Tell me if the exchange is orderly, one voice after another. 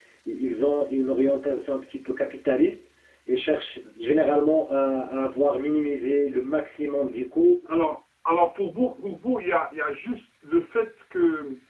Yes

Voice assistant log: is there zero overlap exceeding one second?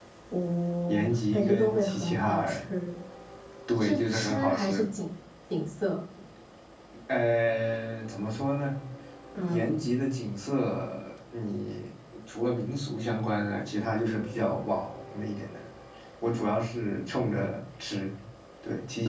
No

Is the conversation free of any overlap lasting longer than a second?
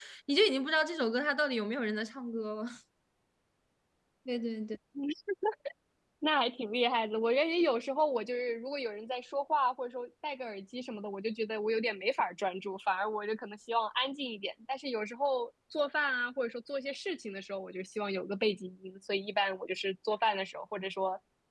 Yes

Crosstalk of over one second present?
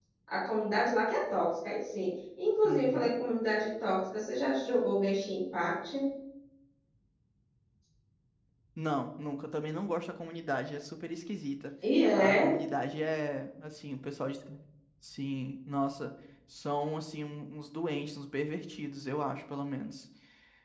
No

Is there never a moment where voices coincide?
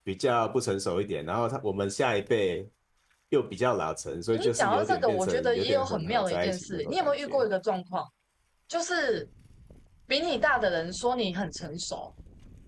No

